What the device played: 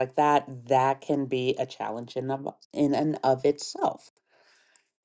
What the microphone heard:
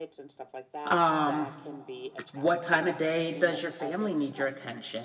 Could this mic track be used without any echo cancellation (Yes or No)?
No